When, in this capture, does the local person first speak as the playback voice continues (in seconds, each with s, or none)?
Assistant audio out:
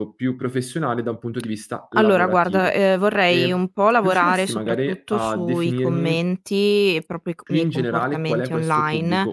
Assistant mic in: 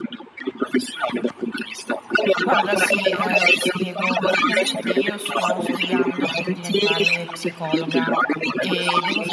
2.4 s